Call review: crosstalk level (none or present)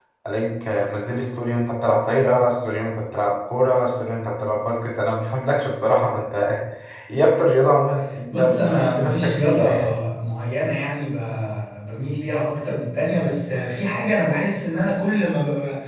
present